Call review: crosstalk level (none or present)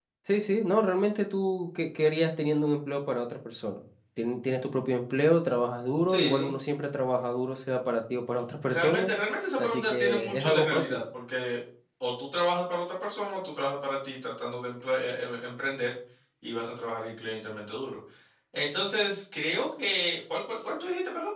present